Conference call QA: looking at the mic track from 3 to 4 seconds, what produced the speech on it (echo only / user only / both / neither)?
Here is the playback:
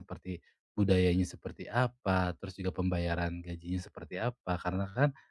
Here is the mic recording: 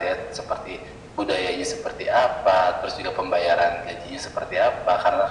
echo only